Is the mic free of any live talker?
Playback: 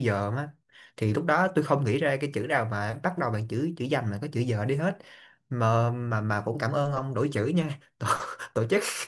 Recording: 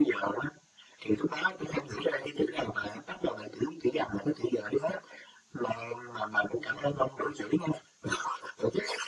Yes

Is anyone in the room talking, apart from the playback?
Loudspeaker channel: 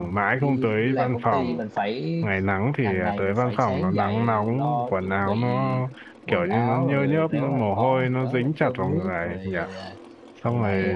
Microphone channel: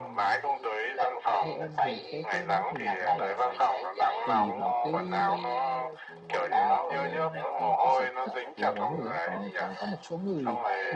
Yes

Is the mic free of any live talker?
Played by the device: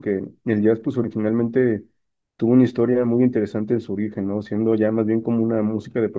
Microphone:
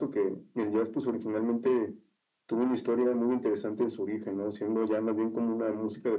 Yes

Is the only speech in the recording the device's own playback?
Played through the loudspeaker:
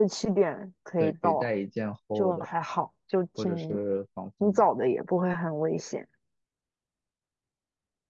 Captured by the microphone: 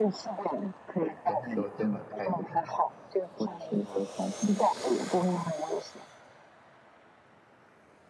No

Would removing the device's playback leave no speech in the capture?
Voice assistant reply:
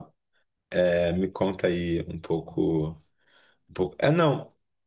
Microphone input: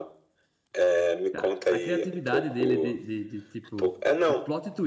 No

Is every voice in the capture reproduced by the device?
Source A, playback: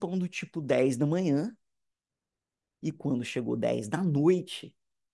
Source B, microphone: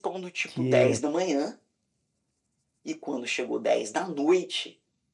No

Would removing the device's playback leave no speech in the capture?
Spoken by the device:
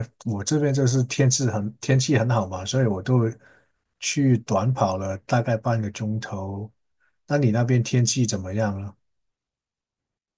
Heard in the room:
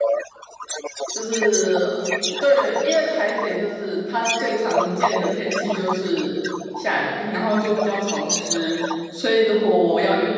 No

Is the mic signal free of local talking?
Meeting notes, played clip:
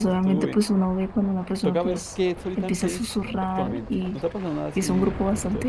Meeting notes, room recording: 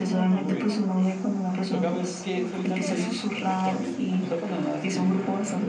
No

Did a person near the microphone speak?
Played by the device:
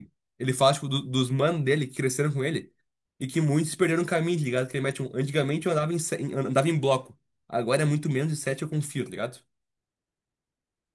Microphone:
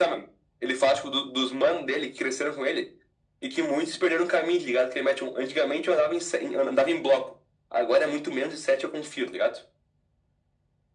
No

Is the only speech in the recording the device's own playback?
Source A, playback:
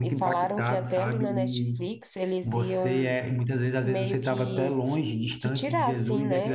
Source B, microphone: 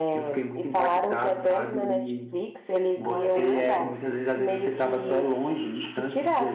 No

